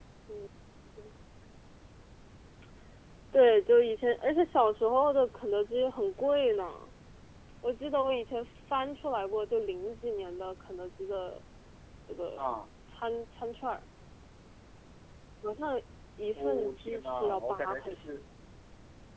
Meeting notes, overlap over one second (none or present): present